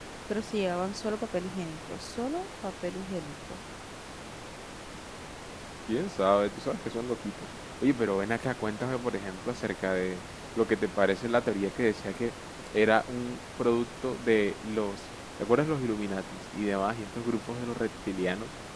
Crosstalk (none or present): none